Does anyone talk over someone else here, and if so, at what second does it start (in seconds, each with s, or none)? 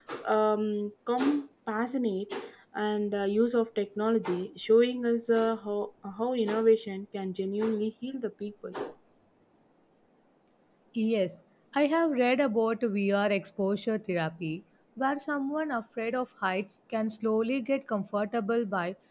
none